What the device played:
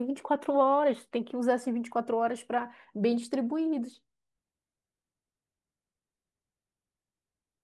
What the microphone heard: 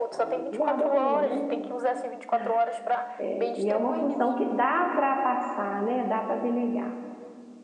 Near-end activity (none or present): present